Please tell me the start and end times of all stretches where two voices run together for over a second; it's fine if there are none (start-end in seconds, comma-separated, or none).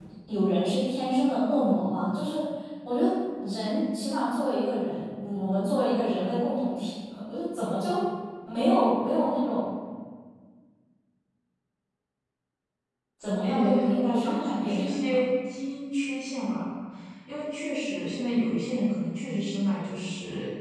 13.4-15.2